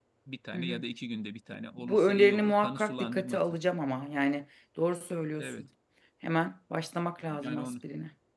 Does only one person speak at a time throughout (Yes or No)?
No